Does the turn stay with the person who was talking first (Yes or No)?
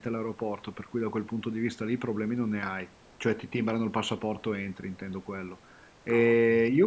Yes